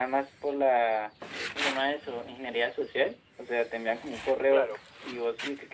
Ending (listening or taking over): listening